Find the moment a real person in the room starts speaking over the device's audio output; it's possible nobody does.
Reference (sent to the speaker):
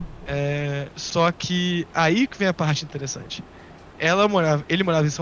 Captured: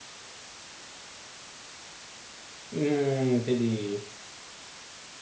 2.7 s

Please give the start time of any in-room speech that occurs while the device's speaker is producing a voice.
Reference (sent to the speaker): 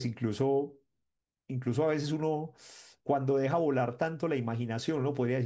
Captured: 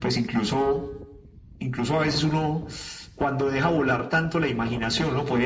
none

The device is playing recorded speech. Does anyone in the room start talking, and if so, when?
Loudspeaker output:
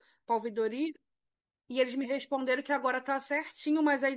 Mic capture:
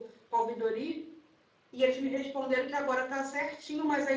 none

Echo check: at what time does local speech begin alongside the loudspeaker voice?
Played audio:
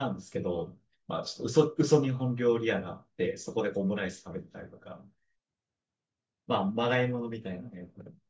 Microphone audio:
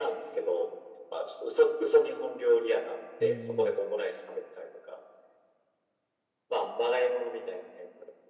3.2 s

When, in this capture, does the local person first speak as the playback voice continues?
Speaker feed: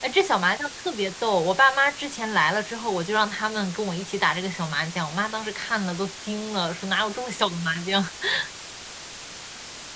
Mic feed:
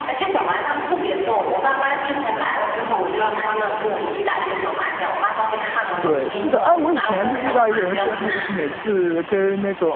6.0 s

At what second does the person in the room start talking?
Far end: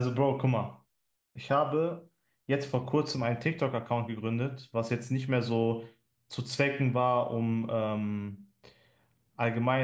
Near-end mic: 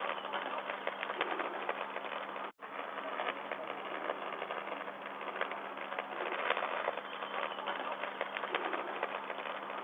none

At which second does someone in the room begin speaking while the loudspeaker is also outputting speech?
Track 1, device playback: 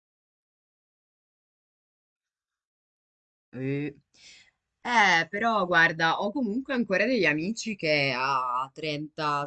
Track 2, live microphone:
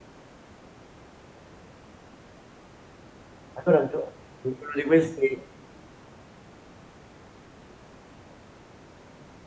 3.5 s

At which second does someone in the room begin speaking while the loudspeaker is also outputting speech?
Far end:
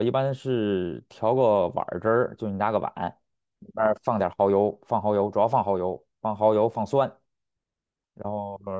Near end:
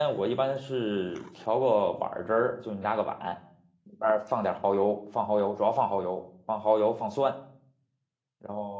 none

